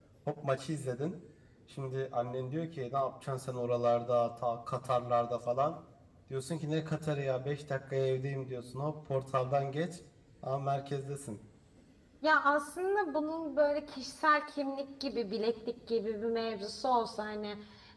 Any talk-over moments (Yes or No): No